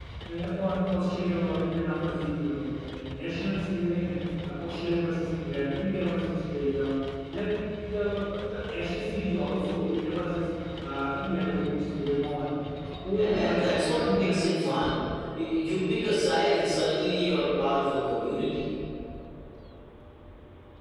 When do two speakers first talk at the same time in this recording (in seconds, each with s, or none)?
13.1 s